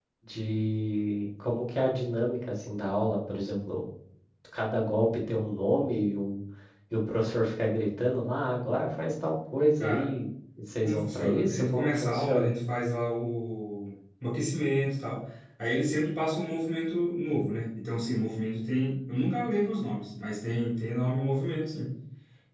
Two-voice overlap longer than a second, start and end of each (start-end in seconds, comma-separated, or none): 10.8-12.5